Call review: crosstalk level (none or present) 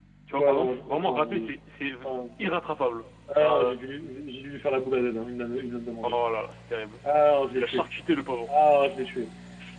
present